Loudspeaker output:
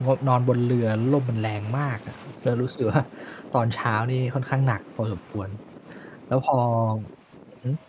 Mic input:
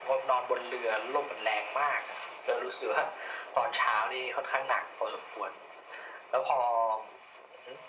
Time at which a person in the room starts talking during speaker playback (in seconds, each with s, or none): none